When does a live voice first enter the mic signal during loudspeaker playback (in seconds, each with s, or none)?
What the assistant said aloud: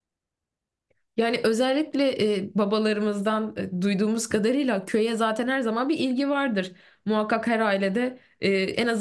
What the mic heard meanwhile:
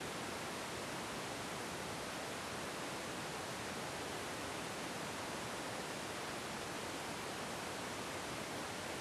none